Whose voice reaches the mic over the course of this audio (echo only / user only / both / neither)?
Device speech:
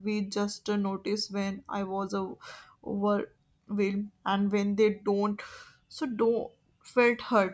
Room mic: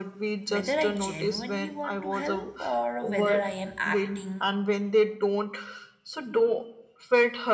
both